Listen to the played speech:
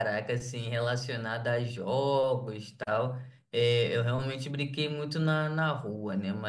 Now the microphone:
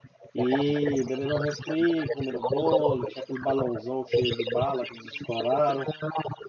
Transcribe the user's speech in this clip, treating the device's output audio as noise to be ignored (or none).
e bebendo um refri, comendo bolo, e tinha aquele balãozão cheio de bala que eles estouraram.